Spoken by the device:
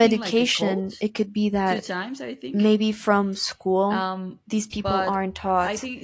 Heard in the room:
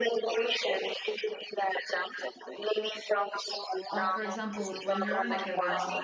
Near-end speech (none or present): present